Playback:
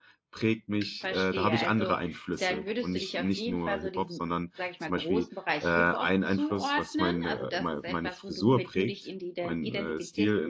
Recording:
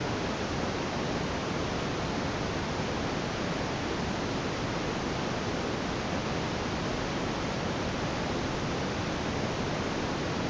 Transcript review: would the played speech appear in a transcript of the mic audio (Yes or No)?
No